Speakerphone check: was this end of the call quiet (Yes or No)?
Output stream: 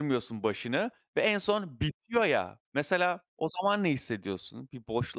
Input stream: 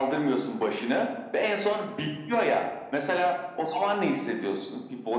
Yes